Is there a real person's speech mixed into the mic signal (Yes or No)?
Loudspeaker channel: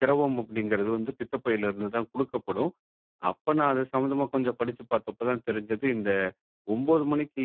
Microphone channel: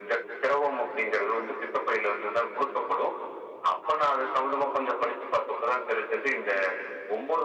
No